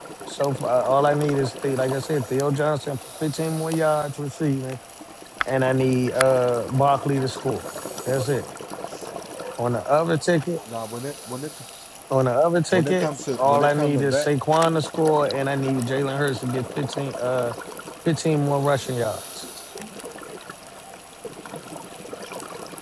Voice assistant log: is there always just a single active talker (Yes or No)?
No